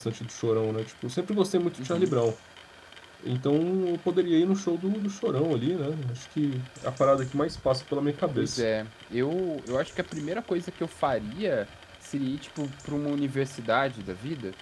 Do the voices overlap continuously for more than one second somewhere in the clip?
No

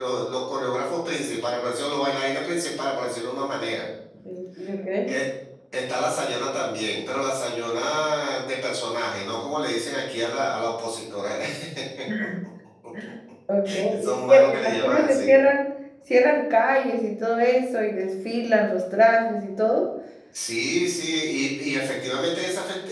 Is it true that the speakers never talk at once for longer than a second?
No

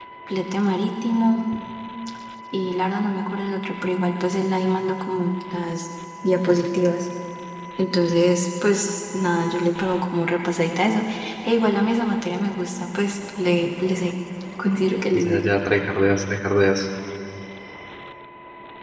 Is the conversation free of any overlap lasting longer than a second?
Yes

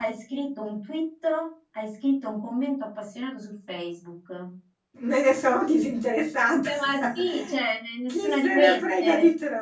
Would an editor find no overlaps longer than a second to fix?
No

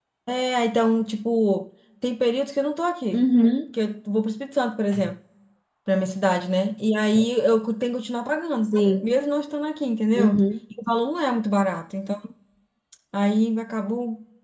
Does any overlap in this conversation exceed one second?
No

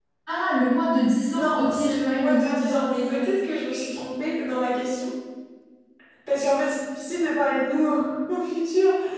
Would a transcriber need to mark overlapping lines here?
Yes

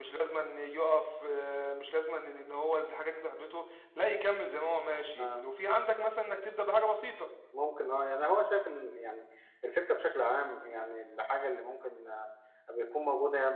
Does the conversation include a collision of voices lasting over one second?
No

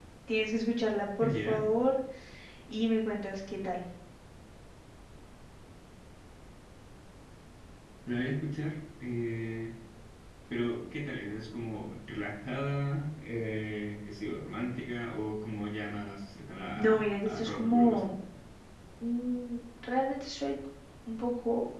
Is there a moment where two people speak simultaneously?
Yes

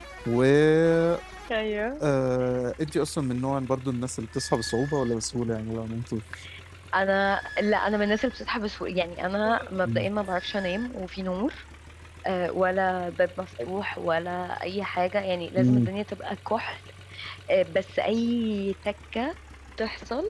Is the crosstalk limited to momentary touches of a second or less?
Yes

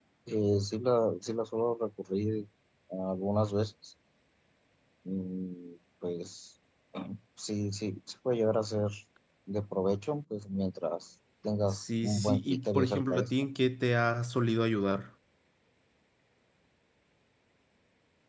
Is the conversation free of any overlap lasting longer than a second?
No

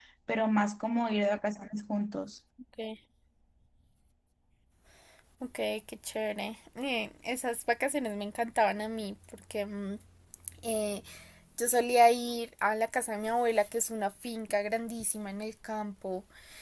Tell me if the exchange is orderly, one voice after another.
Yes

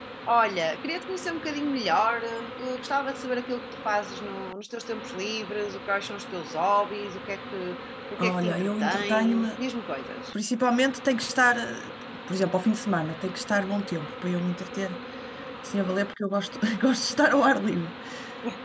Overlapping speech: Yes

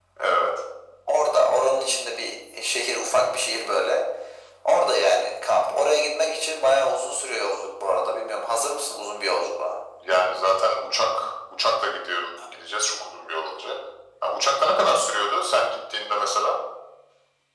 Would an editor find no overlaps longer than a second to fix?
Yes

